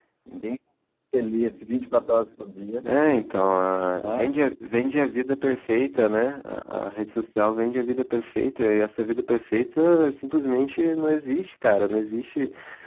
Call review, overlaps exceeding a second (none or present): none